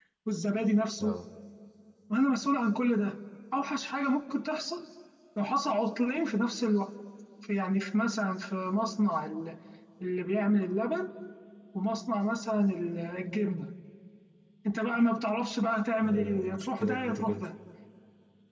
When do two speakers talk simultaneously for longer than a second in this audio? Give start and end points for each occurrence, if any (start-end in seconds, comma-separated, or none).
16.0-17.4